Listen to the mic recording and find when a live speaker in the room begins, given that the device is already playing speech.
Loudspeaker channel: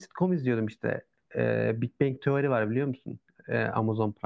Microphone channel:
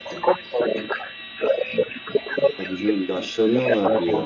2.6 s

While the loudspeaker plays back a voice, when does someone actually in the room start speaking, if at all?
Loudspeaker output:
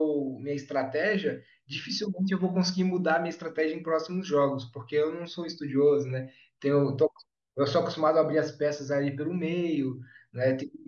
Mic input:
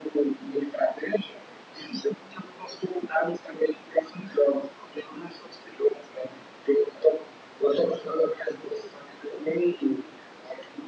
none

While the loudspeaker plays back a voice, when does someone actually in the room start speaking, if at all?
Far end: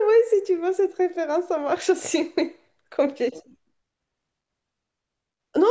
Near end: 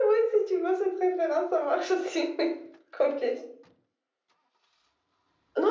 none

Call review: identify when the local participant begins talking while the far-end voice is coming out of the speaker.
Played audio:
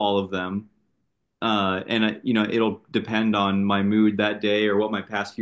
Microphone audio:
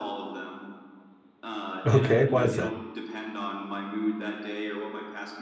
1.9 s

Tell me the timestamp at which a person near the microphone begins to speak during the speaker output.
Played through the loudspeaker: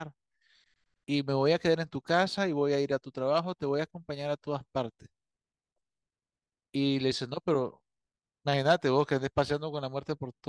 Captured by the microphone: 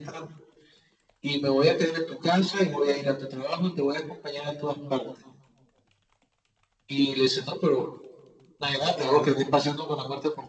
8.9 s

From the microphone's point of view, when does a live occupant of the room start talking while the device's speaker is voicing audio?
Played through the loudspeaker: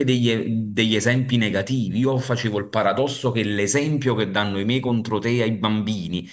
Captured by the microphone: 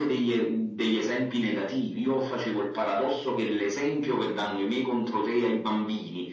none

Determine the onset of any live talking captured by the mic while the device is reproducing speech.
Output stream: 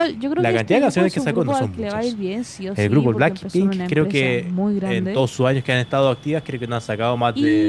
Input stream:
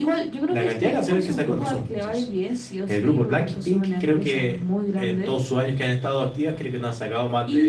none

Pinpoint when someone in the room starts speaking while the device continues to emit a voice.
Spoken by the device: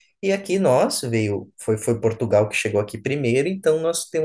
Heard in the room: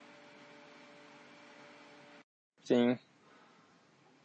2.6 s

